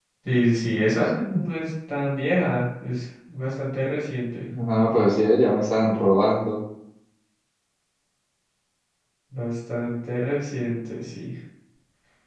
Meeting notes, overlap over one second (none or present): none